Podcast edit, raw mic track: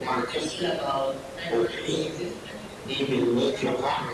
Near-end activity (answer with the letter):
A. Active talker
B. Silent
B